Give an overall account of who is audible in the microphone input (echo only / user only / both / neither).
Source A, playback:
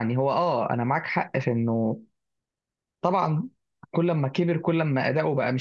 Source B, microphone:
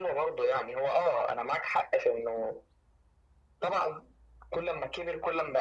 echo only